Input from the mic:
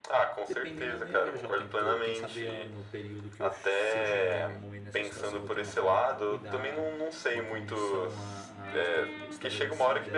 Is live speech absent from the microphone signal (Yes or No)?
No